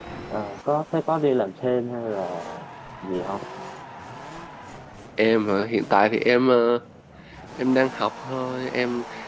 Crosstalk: none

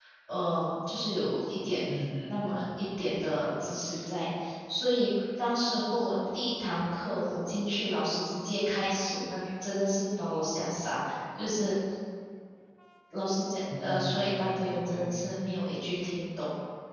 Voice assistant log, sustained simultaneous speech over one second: present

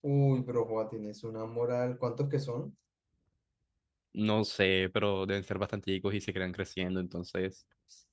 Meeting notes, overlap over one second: none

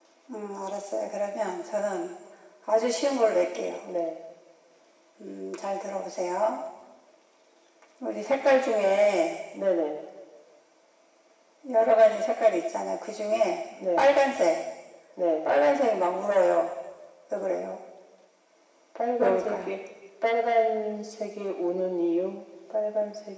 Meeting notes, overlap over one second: none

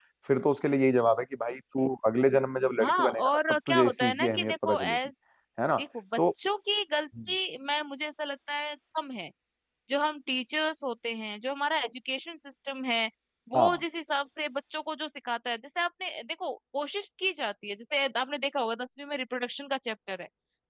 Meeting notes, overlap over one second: present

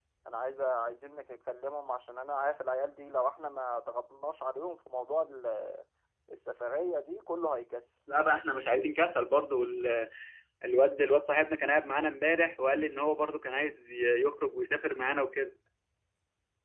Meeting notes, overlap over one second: none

